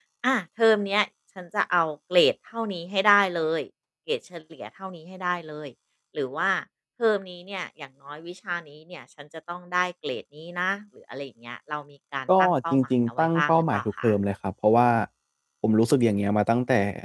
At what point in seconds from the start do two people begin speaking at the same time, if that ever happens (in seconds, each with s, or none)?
12.3 s